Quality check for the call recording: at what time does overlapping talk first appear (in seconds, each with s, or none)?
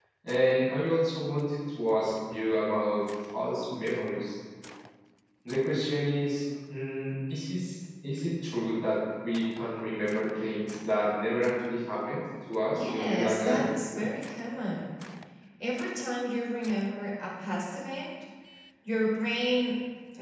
12.8 s